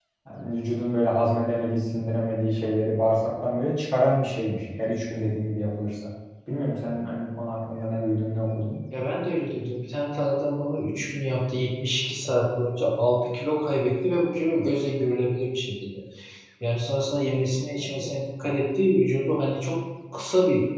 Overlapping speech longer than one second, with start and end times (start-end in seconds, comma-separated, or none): none